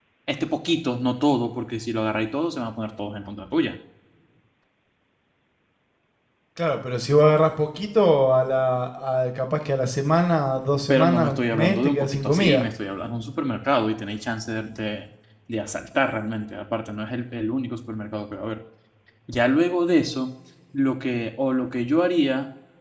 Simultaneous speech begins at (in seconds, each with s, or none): 10.9 s